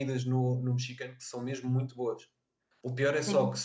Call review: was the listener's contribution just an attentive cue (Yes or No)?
Yes